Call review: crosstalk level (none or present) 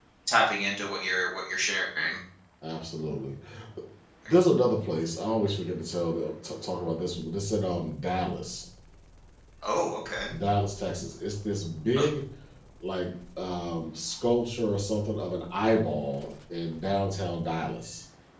none